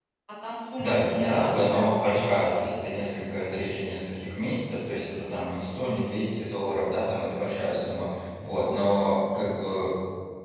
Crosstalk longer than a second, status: present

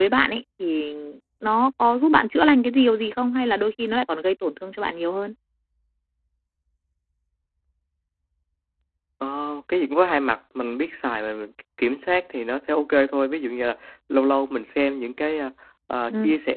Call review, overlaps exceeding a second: none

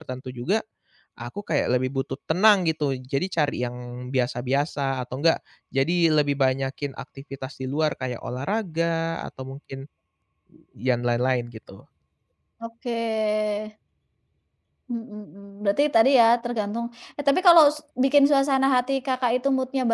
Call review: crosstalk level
none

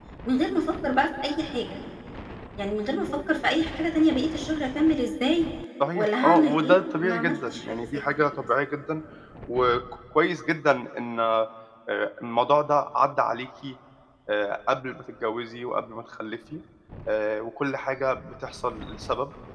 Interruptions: present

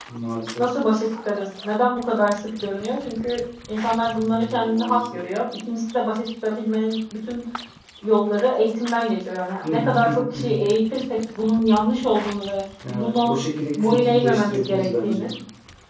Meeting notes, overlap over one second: present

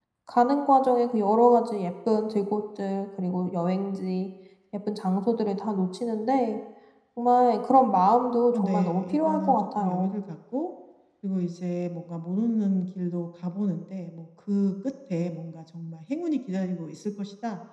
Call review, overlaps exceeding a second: present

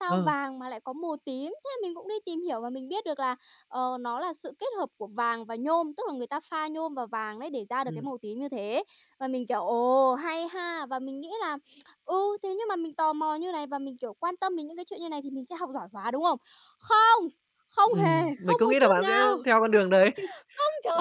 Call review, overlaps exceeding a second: present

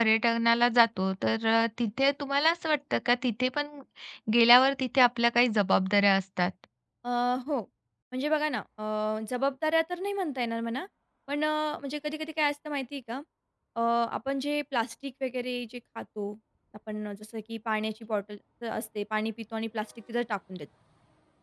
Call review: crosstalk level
none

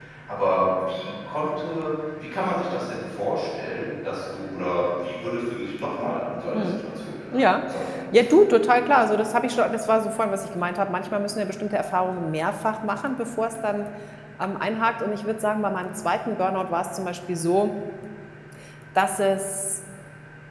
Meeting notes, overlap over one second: none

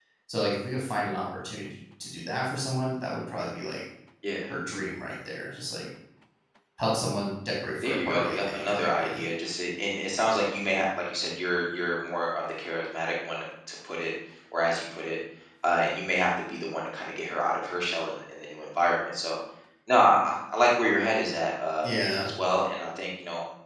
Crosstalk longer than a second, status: present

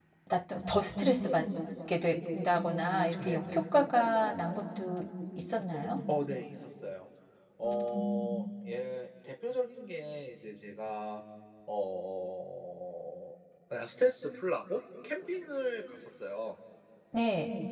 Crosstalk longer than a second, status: none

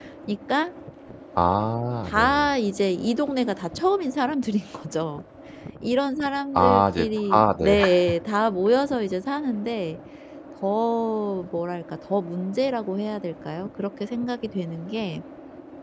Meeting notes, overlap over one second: present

